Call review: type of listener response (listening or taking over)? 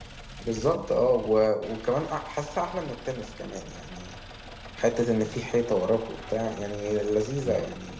taking over